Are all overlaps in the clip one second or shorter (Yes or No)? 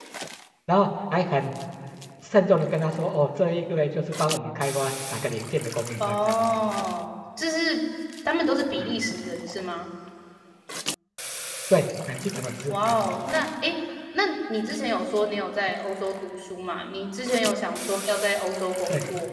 Yes